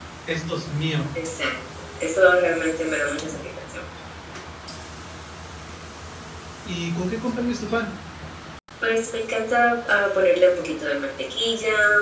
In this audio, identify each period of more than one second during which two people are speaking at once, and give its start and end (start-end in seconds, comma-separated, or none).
none